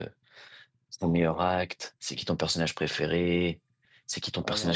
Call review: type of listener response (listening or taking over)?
listening